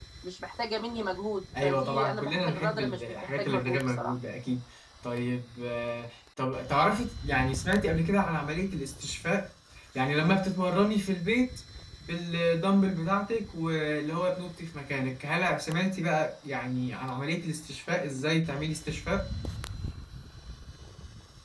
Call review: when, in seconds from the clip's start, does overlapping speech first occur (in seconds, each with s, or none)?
1.5 s